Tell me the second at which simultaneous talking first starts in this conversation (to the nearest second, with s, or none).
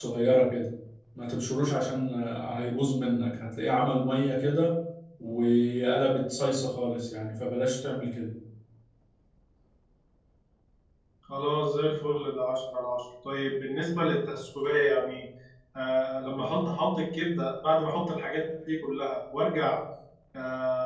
none